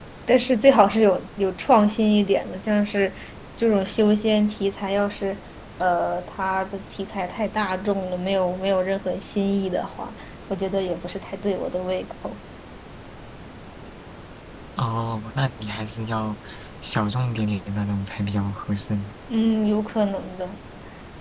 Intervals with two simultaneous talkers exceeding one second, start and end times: none

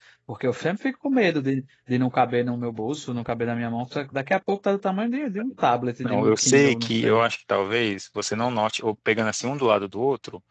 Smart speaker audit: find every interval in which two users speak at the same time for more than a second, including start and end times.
6.0-7.2

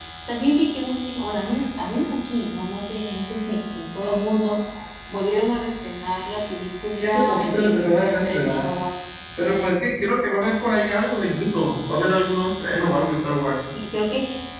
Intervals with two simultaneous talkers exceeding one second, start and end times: 7.0-8.6

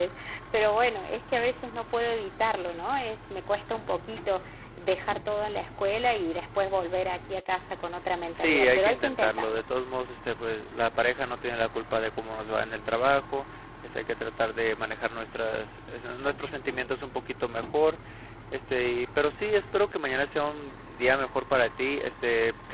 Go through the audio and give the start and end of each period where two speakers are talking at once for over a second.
8.3-9.6

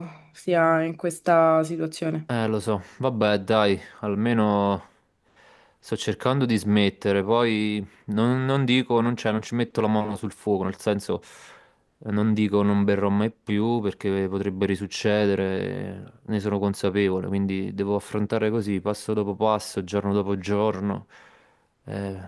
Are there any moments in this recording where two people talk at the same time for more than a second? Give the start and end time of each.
none

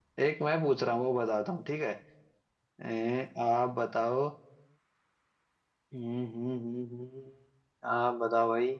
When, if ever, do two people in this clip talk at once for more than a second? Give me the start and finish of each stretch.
none

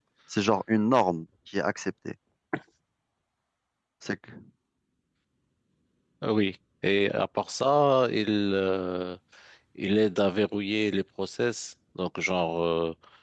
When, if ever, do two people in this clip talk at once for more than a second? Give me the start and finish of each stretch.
none

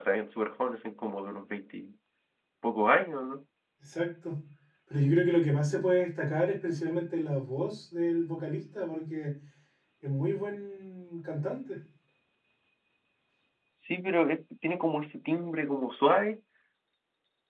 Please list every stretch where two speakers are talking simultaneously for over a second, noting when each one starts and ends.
none

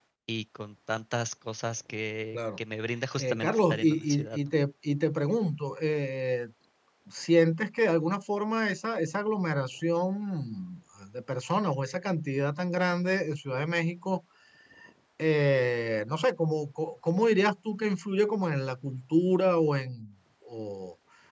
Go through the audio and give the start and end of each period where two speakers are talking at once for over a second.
3.2-4.5

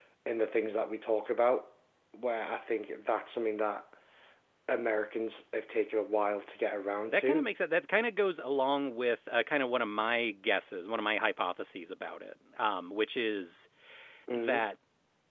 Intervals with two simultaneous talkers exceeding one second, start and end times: none

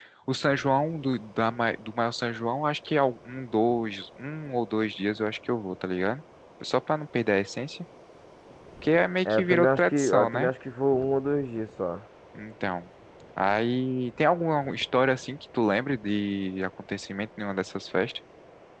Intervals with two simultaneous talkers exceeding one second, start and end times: 9.2-10.5

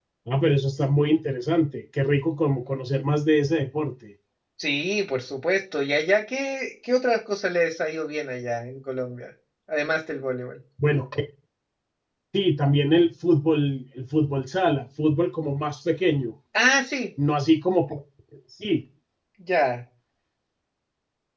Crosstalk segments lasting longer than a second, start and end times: none

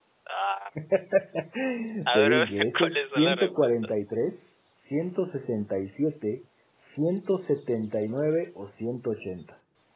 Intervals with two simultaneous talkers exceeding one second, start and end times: 2.1-3.9

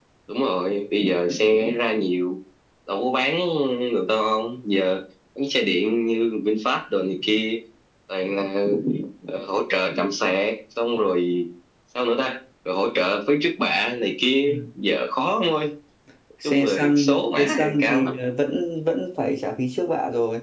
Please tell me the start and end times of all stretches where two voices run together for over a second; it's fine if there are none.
16.4-18.1

